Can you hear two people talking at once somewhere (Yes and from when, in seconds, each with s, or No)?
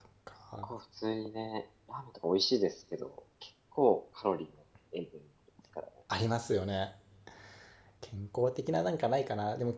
No